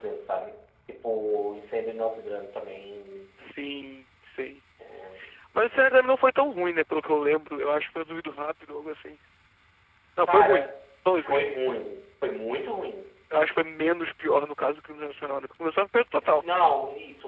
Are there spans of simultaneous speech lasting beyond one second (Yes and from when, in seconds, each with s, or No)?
No